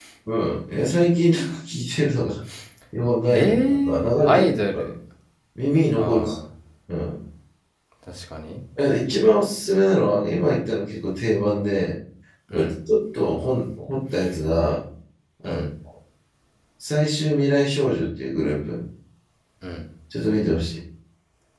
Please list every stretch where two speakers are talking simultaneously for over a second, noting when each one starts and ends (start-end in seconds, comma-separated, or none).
3.3-4.9